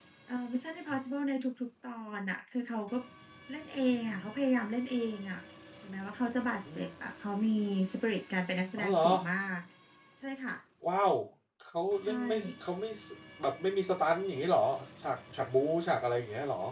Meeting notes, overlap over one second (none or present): none